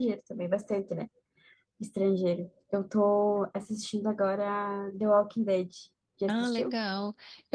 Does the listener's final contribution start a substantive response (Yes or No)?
Yes